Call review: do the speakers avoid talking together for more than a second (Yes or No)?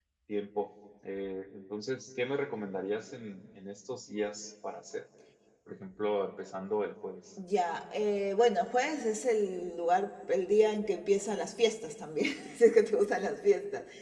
Yes